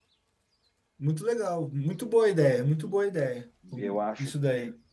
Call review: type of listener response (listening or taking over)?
taking over